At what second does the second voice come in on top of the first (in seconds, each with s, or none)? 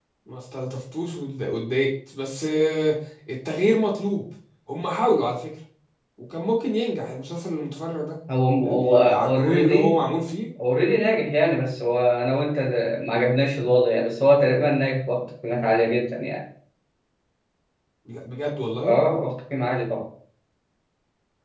8.6 s